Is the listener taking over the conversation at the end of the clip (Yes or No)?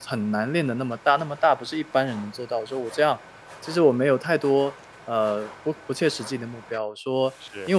No